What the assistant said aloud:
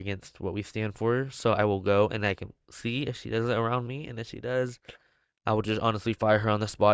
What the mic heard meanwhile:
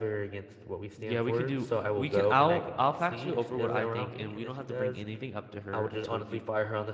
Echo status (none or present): present